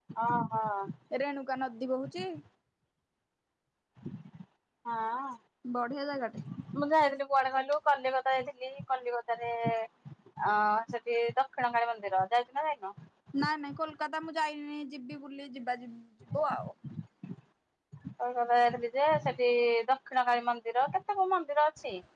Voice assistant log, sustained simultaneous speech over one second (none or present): none